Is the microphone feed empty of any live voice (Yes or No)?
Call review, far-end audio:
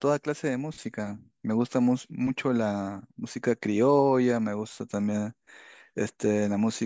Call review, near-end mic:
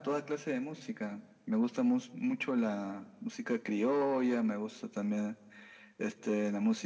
Yes